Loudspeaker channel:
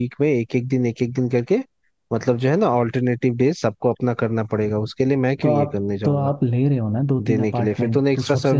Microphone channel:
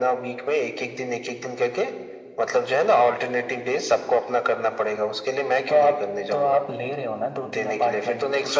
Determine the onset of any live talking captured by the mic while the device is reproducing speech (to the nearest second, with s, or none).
none